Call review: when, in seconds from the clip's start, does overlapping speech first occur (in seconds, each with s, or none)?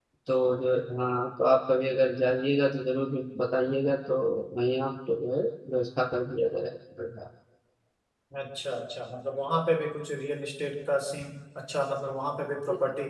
none